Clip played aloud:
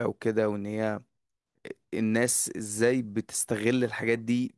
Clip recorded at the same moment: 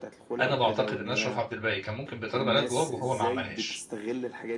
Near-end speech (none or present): present